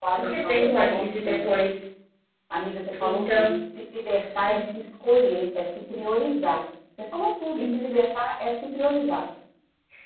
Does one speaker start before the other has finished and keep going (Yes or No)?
Yes